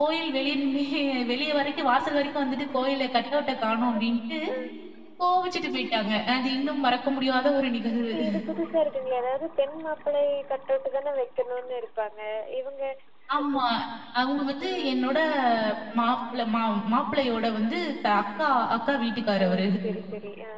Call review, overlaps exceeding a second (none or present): none